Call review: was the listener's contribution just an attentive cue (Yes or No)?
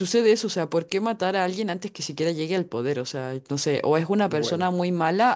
Yes